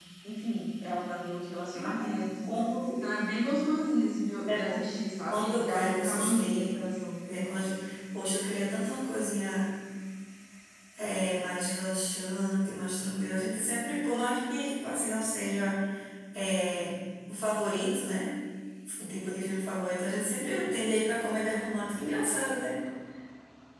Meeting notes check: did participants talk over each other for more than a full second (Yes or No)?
Yes